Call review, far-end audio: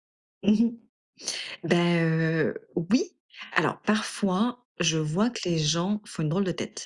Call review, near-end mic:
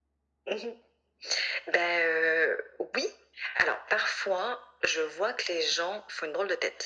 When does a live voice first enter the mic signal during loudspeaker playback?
none

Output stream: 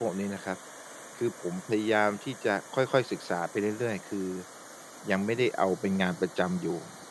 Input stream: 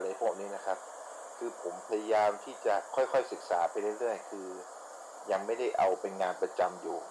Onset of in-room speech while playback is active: none

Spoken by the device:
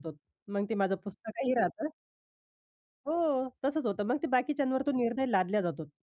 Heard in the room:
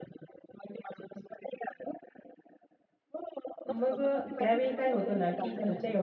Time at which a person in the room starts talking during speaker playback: 3.7 s

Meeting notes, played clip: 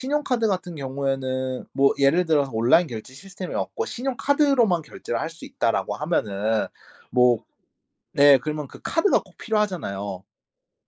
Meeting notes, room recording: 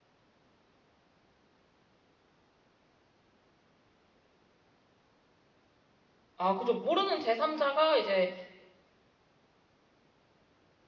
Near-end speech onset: 6.4 s

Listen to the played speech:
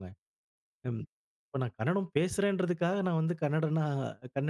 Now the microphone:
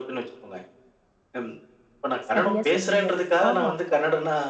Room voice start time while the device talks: 2.3 s

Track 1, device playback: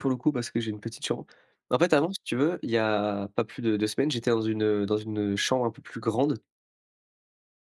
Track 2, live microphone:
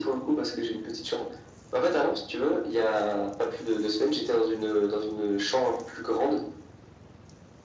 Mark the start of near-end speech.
none

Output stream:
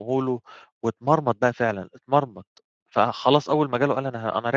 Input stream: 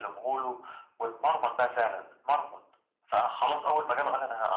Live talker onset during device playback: none

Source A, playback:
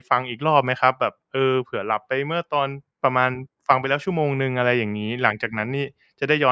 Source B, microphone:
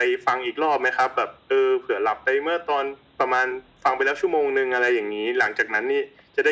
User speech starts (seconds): none

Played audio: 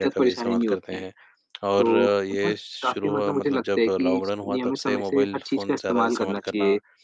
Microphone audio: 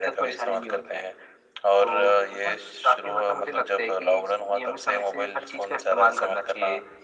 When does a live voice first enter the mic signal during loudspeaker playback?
none

